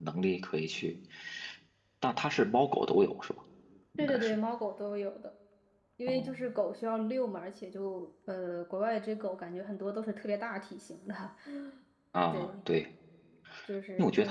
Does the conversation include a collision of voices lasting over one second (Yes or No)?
No